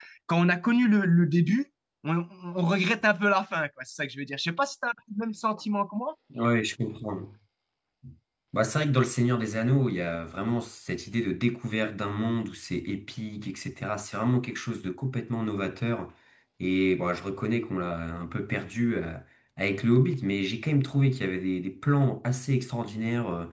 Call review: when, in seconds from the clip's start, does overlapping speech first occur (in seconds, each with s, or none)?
none